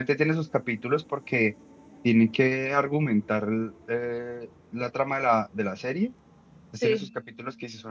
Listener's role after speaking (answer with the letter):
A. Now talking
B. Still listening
B